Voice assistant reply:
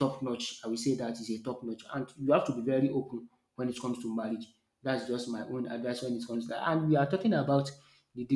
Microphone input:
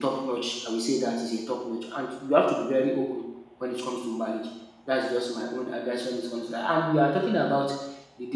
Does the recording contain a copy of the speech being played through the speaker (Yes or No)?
Yes